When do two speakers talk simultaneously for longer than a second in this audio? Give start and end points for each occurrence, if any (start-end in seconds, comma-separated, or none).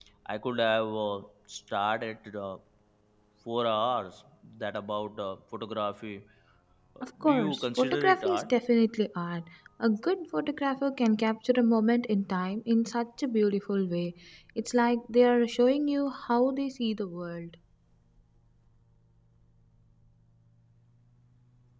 7.0-8.5